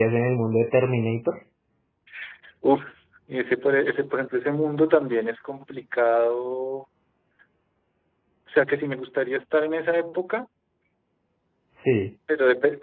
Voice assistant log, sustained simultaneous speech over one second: none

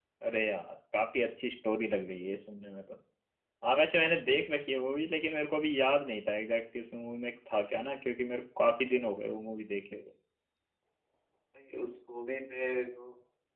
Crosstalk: none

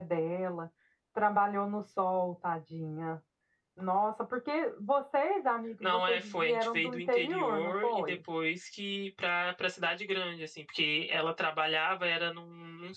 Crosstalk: present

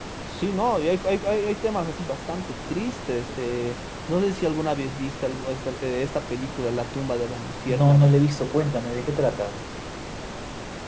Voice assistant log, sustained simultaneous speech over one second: none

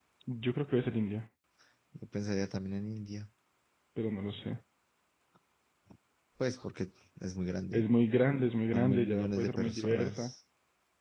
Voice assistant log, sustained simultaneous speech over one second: present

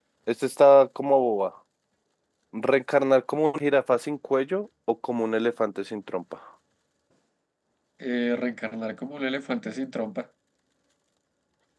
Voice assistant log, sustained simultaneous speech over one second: none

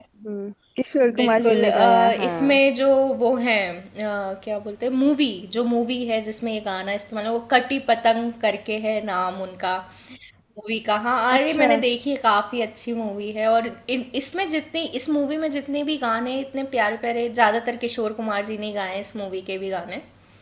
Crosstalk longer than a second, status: present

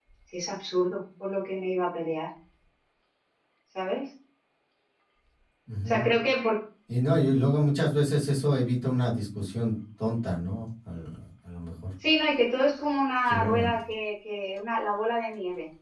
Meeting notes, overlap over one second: none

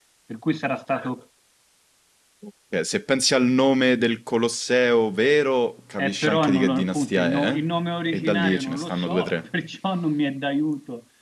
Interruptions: present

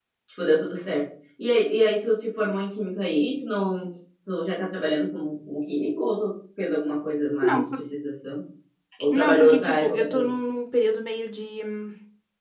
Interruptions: present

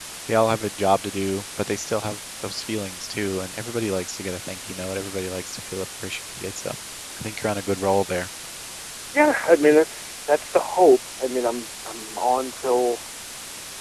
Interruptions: none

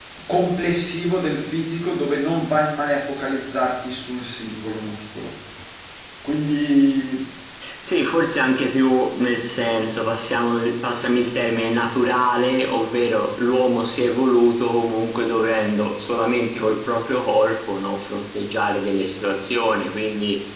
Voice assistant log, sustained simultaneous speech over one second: none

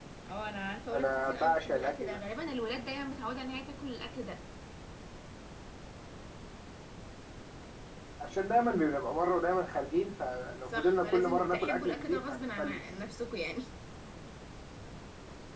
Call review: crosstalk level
present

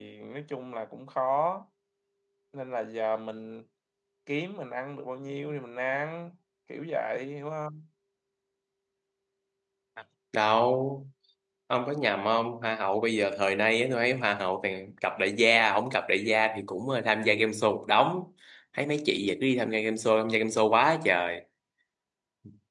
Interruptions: none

